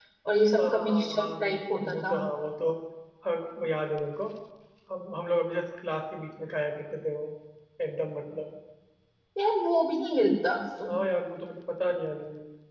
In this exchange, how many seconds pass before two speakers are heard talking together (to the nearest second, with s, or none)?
1 s